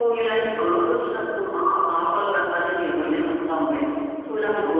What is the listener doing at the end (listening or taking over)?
listening